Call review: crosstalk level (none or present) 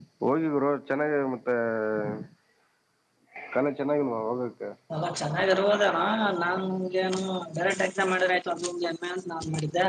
none